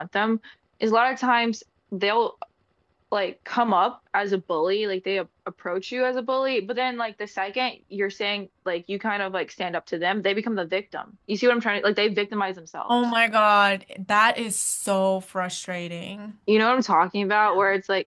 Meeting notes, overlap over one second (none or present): none